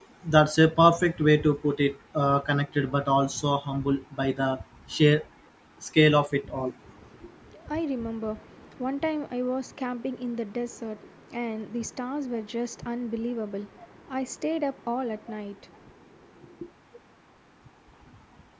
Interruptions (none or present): none